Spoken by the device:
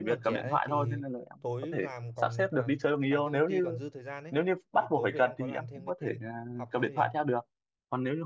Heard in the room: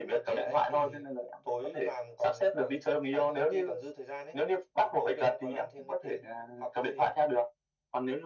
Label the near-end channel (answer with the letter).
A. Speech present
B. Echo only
B